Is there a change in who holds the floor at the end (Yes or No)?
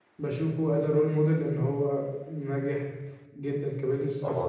Yes